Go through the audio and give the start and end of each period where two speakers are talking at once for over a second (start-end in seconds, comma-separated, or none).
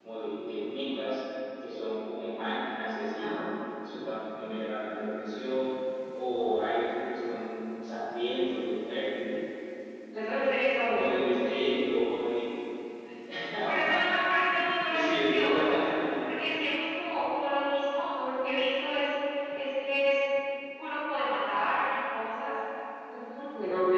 14.9-16.1